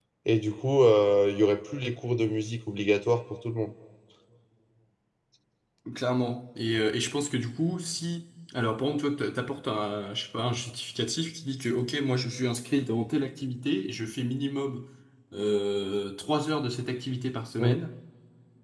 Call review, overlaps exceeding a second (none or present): none